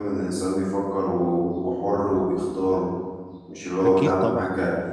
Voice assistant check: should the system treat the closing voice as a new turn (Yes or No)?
No